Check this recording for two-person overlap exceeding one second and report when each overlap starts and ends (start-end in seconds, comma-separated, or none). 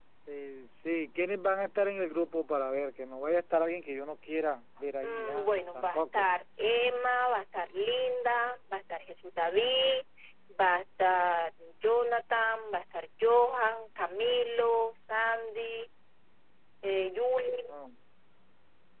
5.0-6.3